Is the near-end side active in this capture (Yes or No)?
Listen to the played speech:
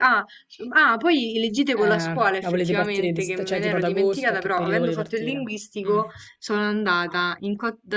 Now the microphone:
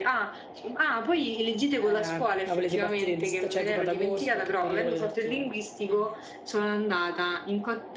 No